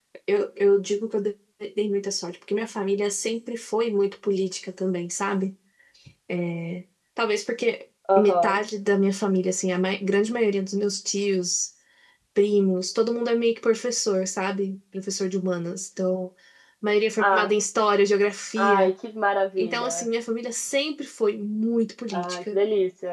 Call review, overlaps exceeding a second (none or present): none